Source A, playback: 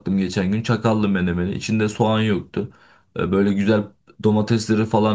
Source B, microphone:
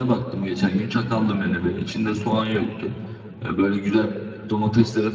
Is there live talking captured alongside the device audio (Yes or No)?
No